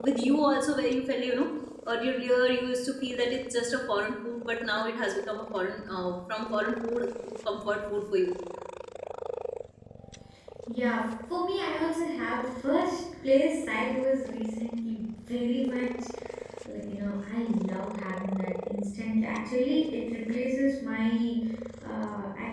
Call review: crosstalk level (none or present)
none